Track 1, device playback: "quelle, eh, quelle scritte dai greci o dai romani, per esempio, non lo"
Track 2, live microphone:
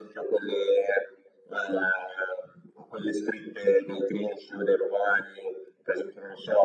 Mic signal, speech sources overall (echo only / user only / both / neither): echo only